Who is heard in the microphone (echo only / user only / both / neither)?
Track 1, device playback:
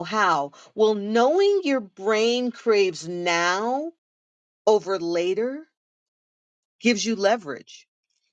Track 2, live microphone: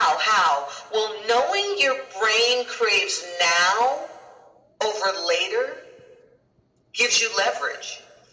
echo only